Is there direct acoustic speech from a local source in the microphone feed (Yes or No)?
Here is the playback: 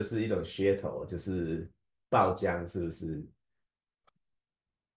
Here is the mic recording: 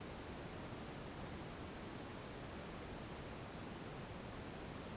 No